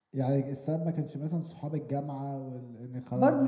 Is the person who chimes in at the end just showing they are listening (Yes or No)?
No